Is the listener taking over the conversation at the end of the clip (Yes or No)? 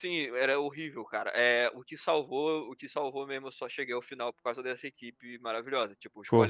No